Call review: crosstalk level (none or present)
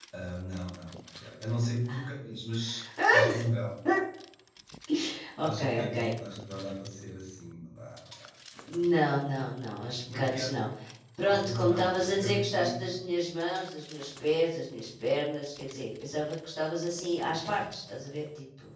present